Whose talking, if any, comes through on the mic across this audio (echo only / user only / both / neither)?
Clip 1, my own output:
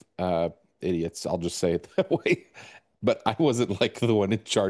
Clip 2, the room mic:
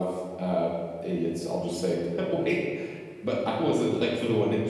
echo only